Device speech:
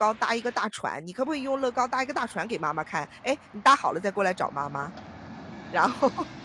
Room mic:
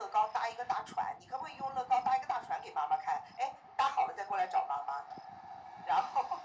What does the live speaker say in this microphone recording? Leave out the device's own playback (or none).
none